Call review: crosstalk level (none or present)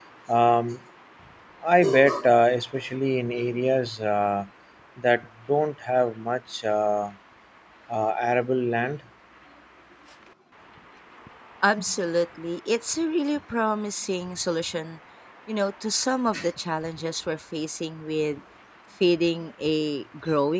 none